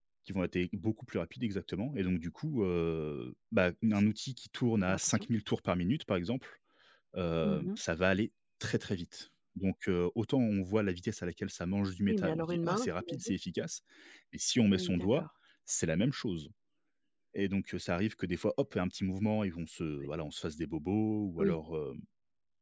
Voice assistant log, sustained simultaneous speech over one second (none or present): present